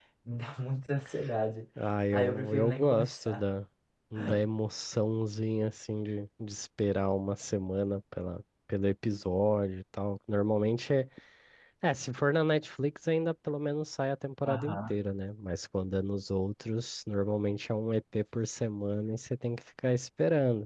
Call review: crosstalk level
present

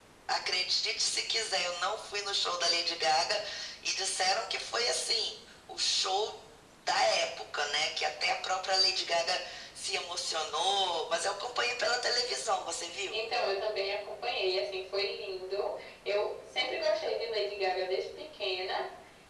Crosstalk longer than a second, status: none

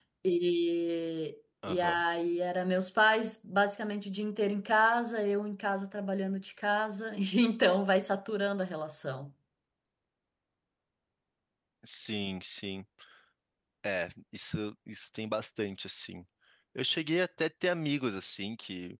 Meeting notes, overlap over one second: none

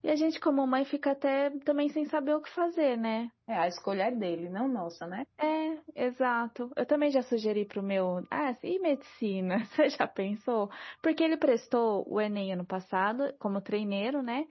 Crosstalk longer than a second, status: none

